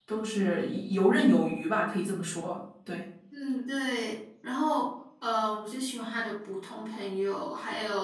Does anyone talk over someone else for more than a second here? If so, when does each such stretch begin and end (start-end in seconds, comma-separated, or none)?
none